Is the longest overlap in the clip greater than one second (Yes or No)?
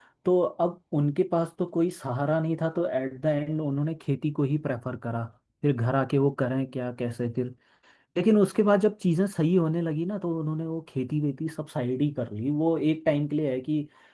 No